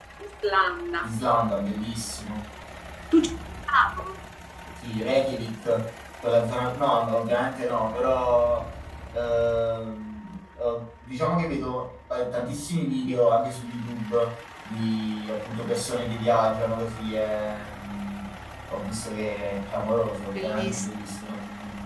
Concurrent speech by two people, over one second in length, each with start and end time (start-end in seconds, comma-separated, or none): none